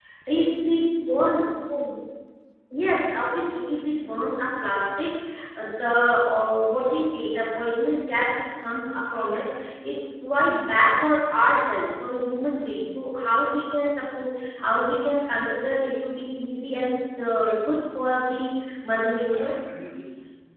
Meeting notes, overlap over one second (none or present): none